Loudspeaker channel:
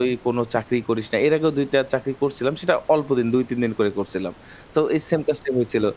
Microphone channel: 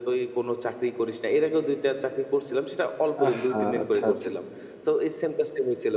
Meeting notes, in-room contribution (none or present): present